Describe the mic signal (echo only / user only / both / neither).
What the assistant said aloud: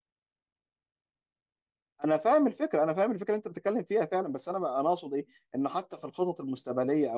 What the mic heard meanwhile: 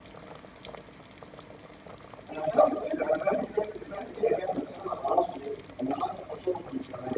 echo only